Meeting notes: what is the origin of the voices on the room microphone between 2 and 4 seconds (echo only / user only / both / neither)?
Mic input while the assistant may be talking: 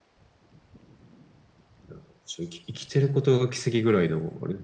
echo only